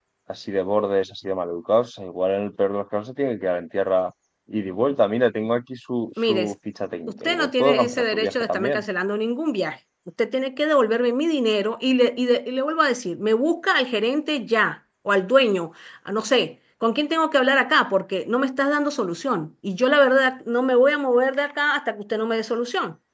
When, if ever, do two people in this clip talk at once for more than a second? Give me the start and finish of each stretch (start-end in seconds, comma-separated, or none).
7.1-8.8